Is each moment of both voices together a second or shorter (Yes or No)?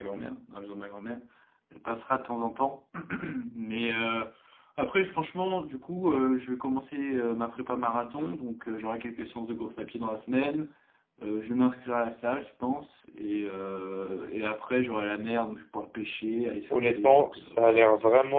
No